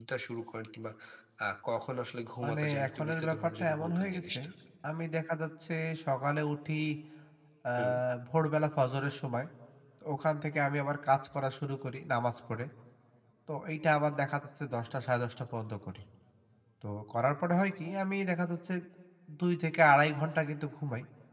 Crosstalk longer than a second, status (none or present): present